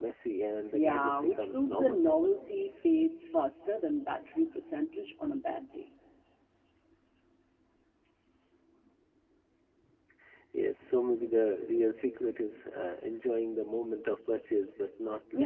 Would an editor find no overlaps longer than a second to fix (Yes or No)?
No